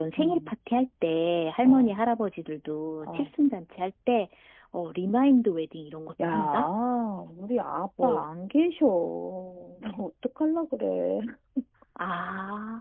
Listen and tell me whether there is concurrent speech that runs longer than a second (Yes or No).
No